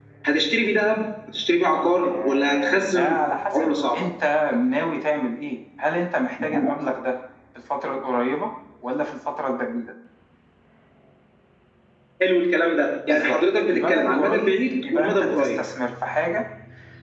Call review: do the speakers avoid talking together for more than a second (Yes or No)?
No